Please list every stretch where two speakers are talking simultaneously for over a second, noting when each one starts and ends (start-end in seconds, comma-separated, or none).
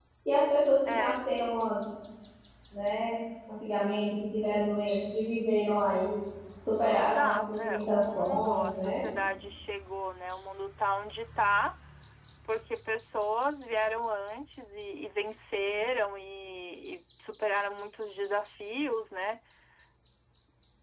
6.9-9.0